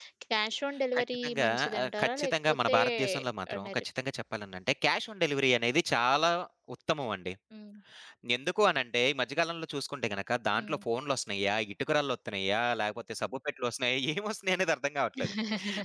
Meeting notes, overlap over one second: present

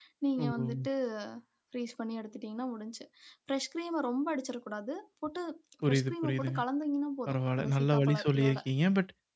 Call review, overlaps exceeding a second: present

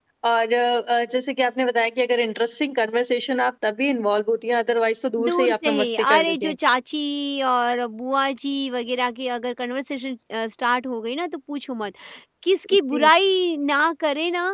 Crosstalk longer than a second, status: present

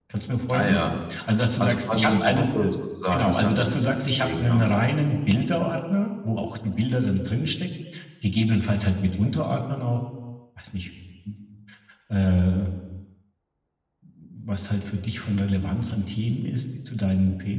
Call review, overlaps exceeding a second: present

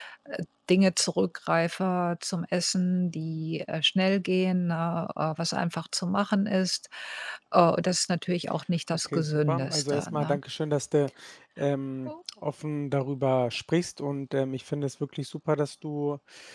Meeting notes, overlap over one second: present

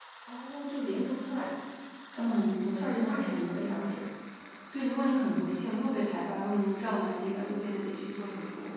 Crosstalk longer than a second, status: present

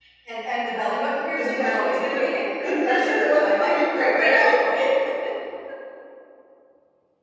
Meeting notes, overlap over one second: present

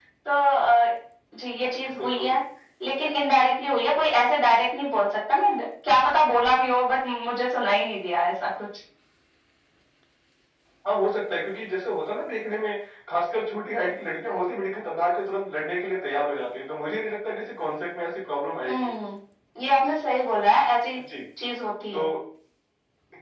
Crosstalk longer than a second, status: none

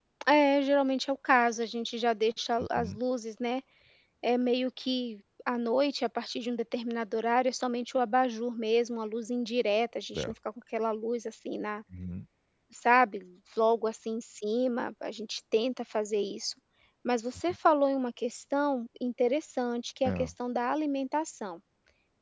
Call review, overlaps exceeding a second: none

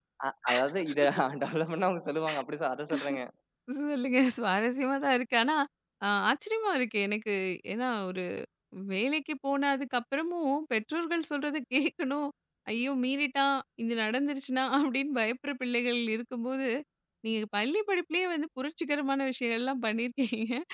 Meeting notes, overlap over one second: none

